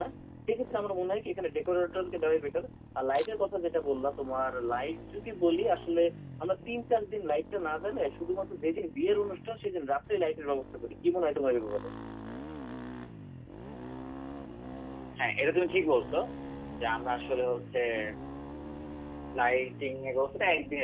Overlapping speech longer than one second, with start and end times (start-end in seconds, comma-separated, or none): none